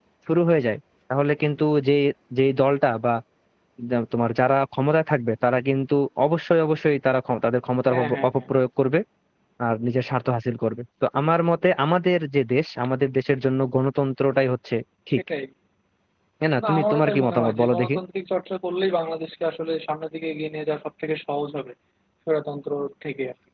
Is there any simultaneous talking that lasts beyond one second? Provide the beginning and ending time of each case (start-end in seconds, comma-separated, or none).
16.7-17.9